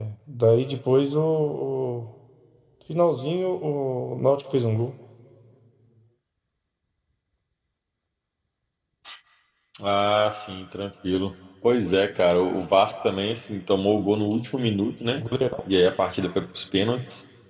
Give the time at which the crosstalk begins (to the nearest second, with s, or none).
none